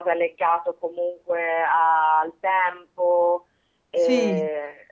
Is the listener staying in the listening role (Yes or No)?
Yes